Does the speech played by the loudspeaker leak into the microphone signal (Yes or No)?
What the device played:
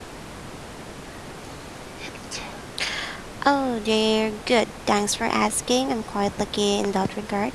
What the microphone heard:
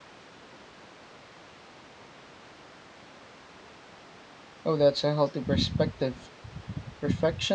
No